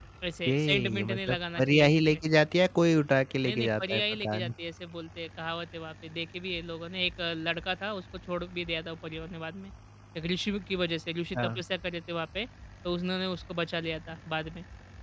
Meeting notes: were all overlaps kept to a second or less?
No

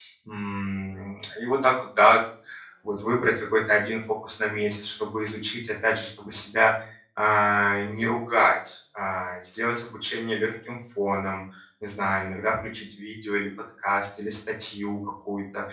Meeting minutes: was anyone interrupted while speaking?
No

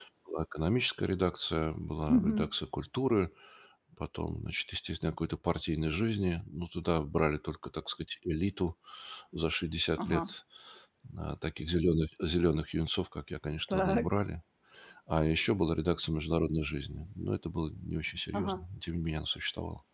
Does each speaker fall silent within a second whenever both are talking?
Yes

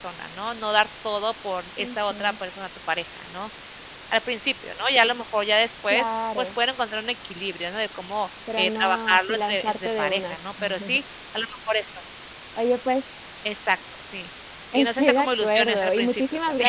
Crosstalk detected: Yes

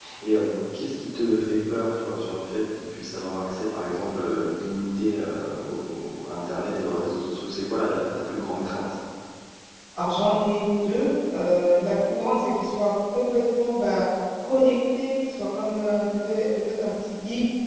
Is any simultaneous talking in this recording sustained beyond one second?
No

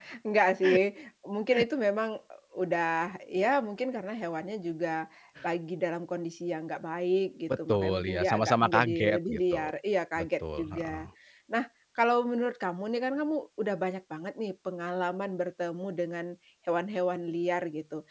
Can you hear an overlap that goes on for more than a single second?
Yes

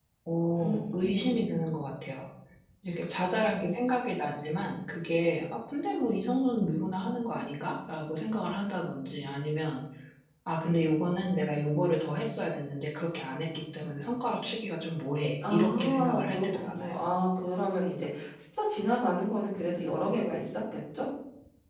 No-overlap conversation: No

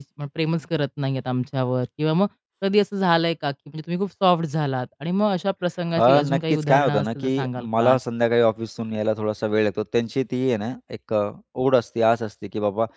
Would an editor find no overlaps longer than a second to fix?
No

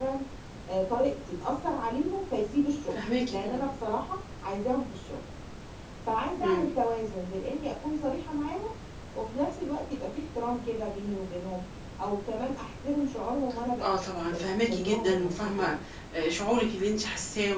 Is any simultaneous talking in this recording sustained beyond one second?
Yes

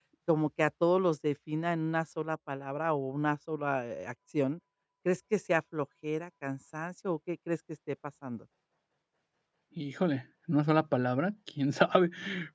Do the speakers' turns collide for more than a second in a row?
No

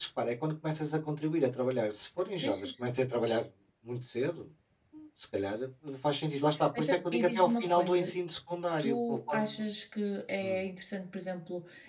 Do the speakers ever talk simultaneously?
Yes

